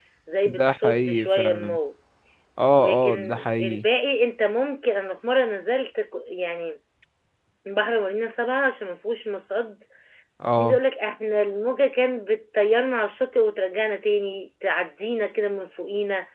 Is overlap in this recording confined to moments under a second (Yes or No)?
No